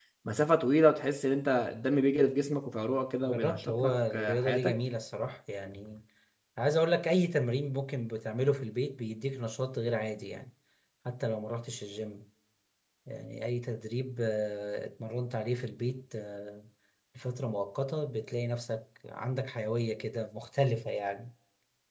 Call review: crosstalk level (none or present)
present